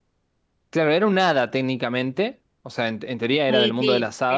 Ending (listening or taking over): taking over